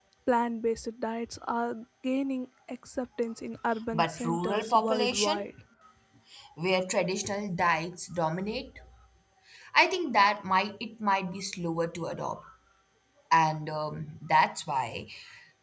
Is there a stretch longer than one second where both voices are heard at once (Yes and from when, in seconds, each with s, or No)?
Yes, from 3.9 s